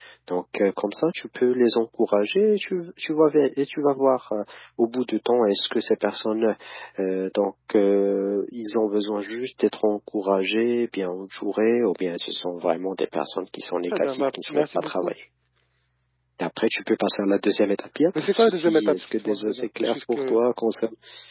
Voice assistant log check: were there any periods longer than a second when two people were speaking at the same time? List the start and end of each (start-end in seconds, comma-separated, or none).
13.9-15.1, 18.2-20.4